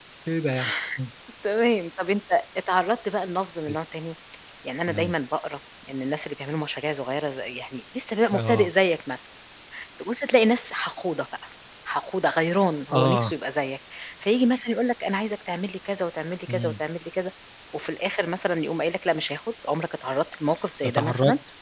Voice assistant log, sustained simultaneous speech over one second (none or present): none